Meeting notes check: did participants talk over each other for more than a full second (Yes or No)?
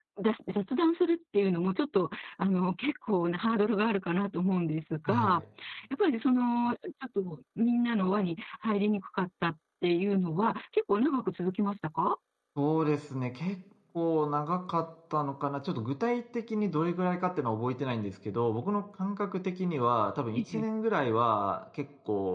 No